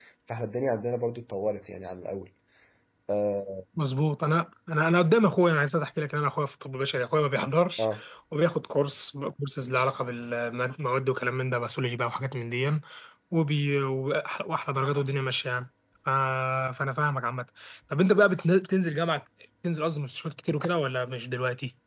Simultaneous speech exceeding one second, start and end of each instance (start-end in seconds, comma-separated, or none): none